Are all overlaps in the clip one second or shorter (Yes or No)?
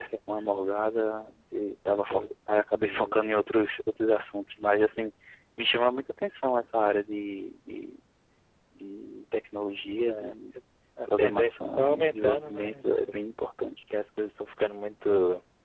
No